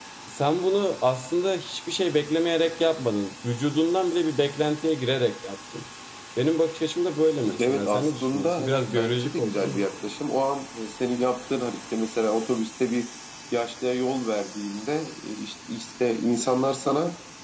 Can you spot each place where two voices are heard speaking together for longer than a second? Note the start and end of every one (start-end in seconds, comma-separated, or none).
7.6-9.8